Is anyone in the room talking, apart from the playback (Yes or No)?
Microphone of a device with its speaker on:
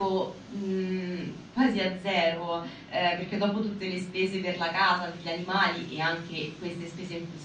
Yes